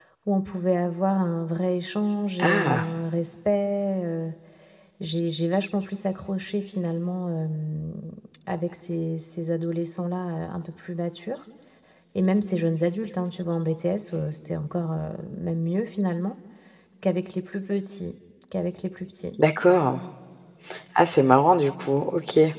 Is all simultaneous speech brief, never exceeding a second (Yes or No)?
Yes